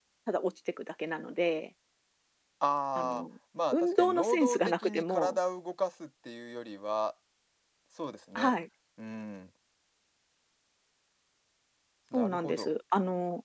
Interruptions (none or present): present